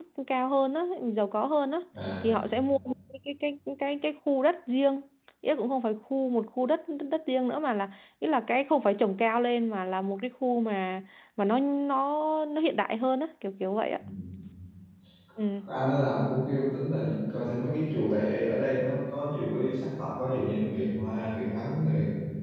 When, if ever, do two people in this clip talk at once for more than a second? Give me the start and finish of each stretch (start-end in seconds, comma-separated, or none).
none